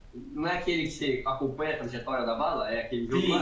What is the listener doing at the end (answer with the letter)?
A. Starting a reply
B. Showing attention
A